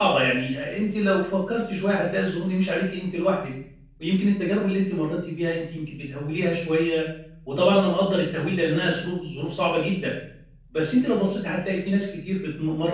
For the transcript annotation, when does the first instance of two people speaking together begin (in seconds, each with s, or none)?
none